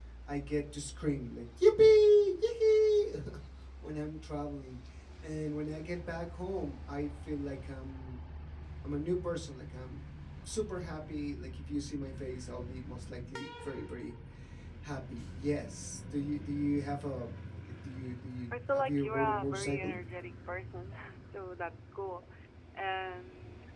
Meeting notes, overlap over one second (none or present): present